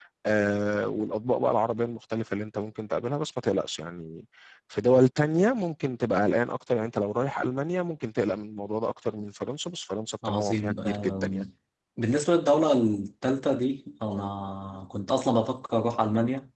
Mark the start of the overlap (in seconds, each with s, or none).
10.2 s